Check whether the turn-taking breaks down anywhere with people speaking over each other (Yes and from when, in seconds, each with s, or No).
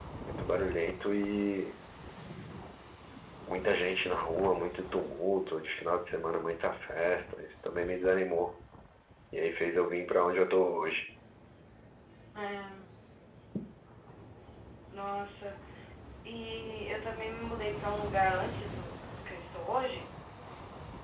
No